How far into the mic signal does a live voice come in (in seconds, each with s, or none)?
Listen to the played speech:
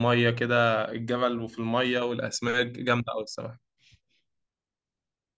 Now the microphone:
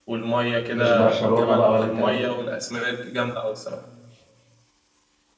0.7 s